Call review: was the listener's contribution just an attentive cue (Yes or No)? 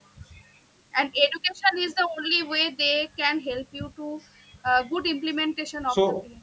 No